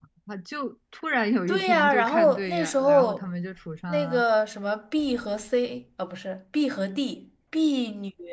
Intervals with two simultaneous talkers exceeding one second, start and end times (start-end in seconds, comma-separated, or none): 1.5-3.2